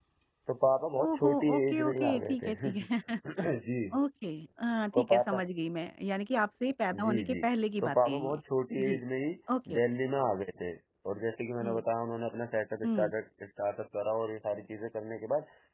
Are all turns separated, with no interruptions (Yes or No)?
No